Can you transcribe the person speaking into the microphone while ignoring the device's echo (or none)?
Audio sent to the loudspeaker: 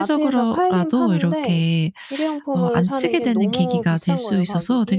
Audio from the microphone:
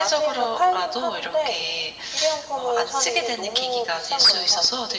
none